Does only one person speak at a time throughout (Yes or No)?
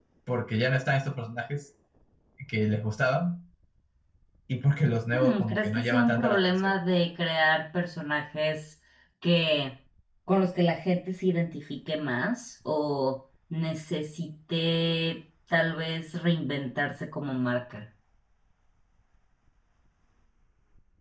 No